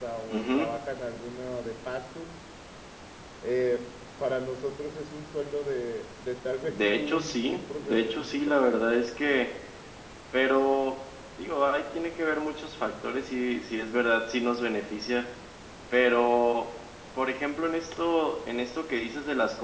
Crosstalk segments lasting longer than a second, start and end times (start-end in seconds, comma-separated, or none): 6.7-8.6